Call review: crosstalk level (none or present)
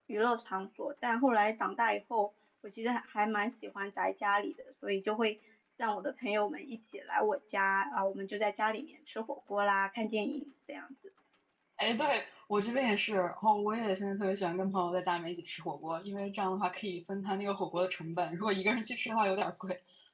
none